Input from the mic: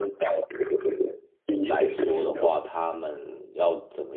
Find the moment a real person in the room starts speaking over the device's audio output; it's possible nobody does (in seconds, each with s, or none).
1.6 s